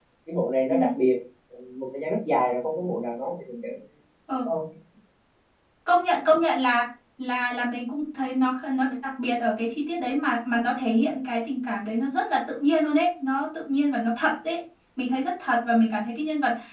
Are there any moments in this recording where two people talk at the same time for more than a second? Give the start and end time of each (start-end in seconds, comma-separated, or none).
none